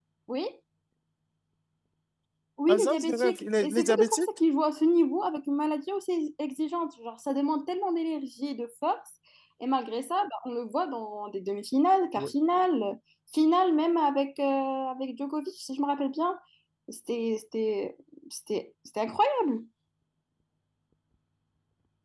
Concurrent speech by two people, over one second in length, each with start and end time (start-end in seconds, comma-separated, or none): 2.7-4.3